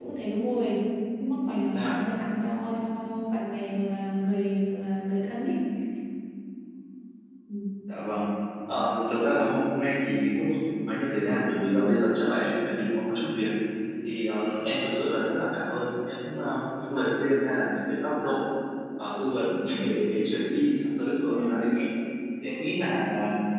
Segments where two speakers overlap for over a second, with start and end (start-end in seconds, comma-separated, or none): none